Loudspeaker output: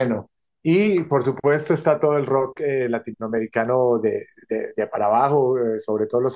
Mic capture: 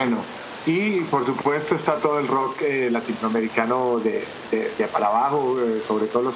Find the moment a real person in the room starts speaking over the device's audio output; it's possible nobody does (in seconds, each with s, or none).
none